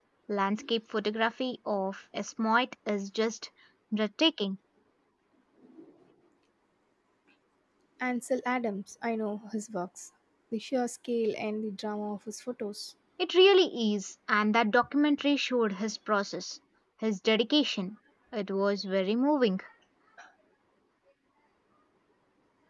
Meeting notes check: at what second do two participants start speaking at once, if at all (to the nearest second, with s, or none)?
none